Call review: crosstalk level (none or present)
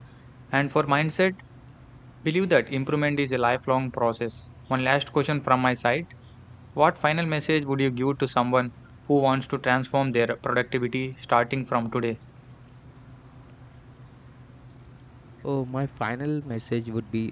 none